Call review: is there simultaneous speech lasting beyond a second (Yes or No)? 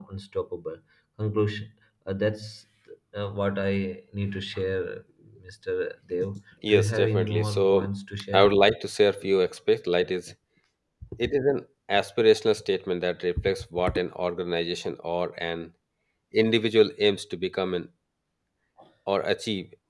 Yes